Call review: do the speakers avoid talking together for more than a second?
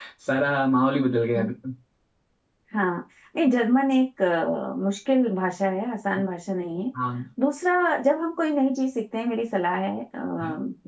Yes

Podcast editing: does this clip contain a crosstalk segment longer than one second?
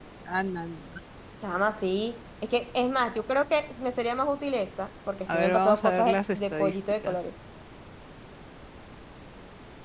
Yes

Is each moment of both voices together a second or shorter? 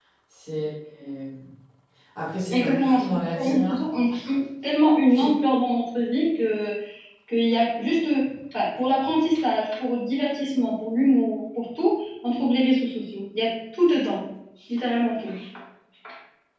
No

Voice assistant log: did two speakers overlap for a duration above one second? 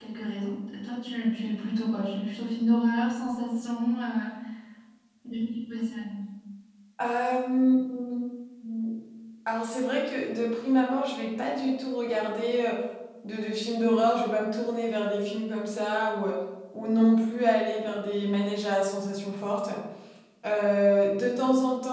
No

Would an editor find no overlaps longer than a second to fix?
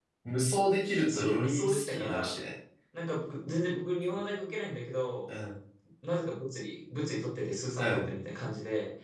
No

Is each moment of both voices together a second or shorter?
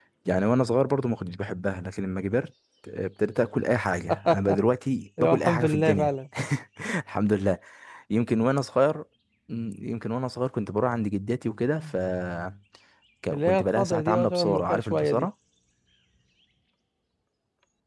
No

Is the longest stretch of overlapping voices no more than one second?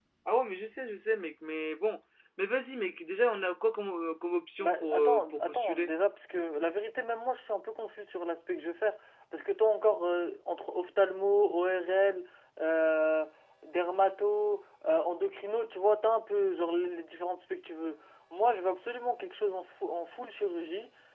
No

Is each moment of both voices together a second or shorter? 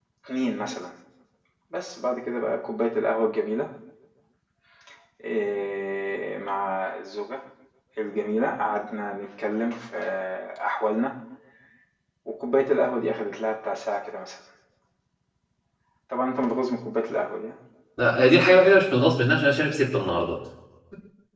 Yes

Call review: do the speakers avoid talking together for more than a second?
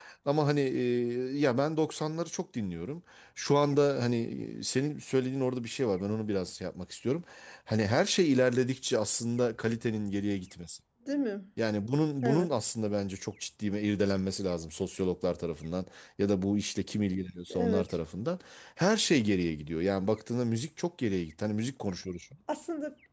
Yes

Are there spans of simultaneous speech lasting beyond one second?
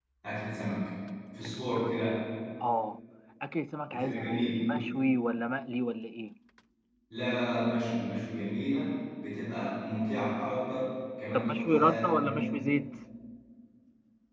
Yes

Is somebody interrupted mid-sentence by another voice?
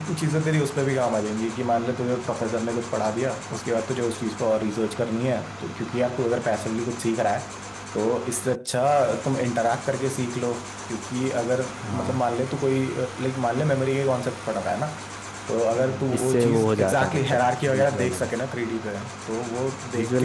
Yes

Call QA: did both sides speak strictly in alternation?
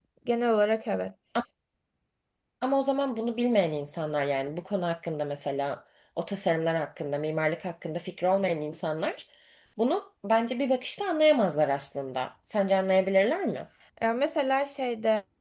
Yes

